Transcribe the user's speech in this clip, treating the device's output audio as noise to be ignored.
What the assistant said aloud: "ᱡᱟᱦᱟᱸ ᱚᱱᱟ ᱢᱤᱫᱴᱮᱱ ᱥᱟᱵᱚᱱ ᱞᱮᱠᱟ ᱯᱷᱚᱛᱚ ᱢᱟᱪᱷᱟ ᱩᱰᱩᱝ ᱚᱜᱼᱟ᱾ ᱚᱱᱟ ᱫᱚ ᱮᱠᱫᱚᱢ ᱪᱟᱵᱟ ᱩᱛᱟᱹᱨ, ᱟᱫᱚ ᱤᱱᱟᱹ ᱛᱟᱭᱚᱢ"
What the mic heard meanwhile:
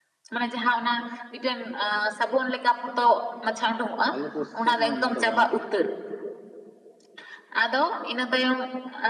ᱟᱞᱮ ᱠᱳ ᱥᱮᱫ ᱦᱚᱸ ᱚᱱᱟ ᱫᱚ ᱵᱟᱹᱱᱩᱜᱼᱟ᱾

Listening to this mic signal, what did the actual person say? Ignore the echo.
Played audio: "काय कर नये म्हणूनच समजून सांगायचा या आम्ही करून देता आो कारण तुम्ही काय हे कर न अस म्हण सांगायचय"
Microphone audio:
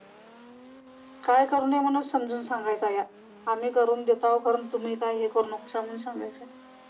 none

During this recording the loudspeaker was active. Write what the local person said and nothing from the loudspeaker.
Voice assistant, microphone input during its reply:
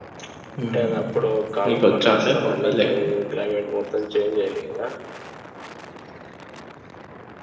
మ్మ్ మీకు వచ్చా అండి పొంగల్ చేయడం

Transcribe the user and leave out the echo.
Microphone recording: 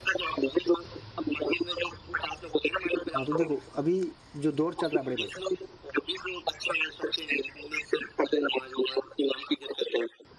ہاں تو دیکھو ابھی جو دور چل رہا ہے بڑے بھائی

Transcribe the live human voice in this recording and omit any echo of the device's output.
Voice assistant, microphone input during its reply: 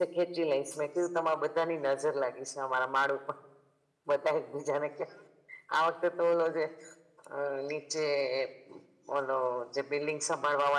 none

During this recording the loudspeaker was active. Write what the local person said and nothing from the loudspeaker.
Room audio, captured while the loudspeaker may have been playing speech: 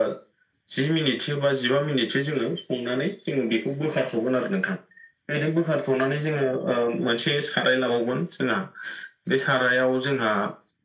none

